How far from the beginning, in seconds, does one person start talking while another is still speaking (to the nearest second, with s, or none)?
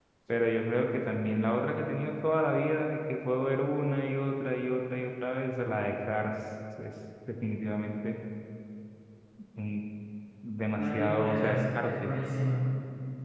11 s